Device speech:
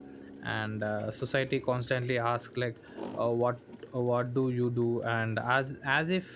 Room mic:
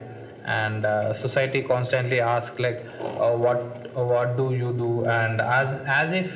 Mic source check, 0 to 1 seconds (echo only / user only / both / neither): echo only